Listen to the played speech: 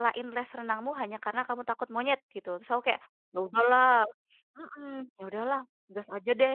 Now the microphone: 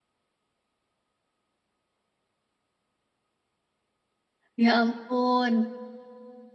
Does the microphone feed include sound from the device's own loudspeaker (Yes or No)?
No